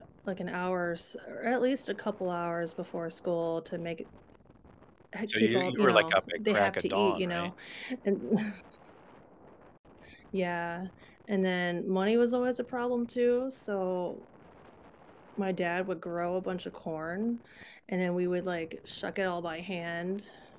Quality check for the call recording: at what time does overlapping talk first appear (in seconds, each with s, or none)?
5.3 s